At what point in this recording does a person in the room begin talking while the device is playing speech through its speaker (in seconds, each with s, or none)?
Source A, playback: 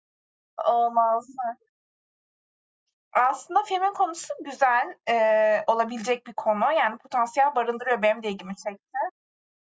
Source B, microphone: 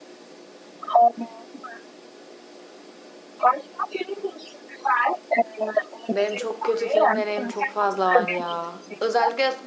6.1 s